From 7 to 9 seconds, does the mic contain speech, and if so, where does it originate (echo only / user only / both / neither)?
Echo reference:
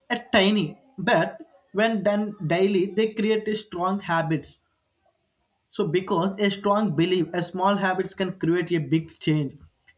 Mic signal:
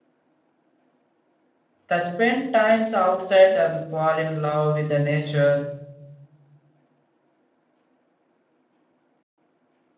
neither